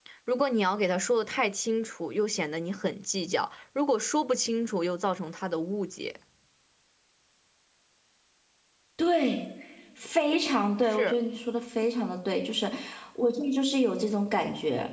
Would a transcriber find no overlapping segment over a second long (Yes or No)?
Yes